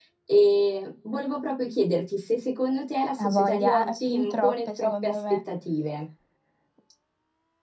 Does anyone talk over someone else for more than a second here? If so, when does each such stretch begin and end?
3.2-5.2

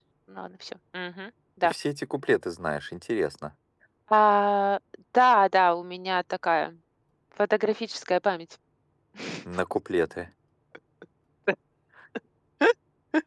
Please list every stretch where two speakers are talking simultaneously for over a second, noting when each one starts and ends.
none

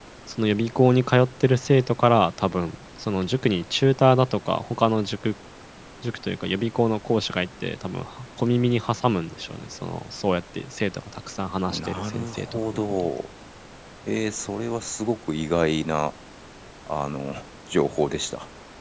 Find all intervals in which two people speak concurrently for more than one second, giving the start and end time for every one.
11.7-13.1

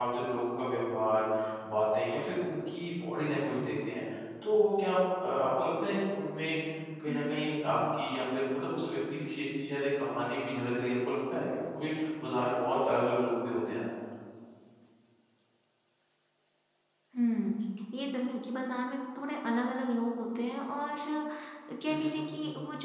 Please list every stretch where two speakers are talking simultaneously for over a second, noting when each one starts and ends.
none

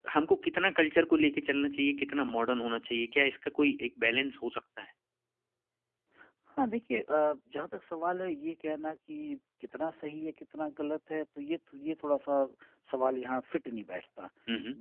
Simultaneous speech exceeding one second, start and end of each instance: none

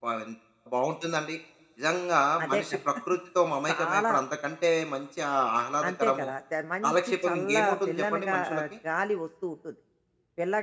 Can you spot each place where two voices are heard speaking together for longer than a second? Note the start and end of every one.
6.8-8.6

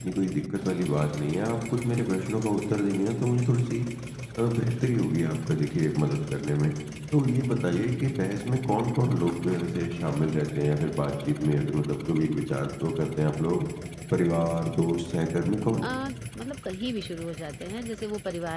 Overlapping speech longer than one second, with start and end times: none

